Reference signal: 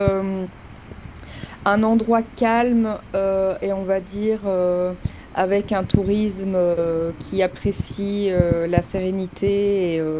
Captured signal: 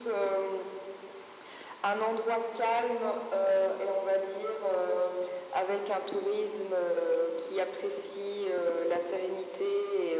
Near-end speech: none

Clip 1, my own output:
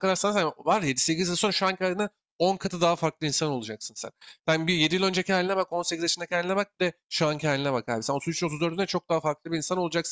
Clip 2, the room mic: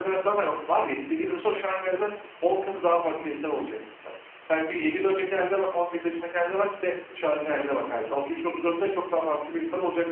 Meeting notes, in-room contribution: none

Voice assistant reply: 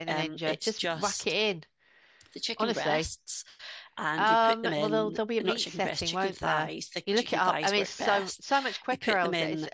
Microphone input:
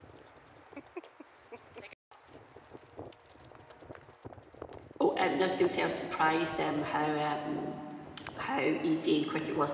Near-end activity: present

